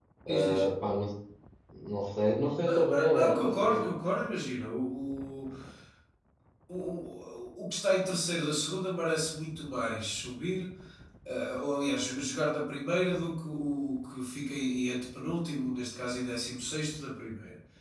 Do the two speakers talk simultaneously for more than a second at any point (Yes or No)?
Yes